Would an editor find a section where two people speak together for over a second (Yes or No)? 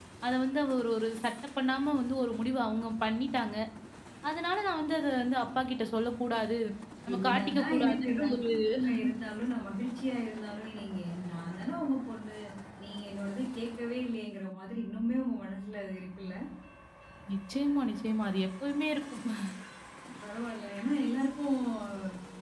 Yes